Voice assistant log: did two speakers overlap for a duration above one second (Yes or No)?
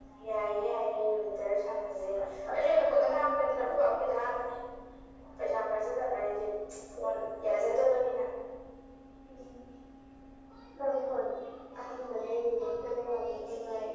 Yes